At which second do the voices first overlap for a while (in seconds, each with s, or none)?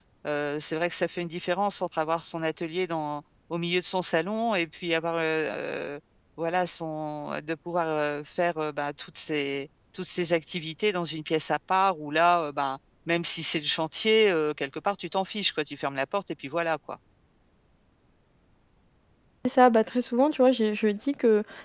none